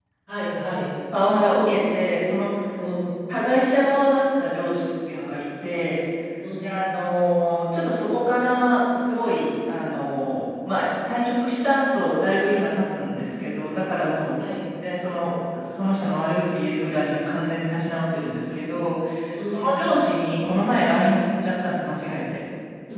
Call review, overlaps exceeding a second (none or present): none